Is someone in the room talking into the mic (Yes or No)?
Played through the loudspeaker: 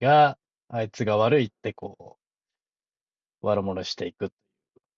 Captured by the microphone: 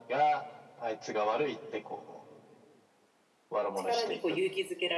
Yes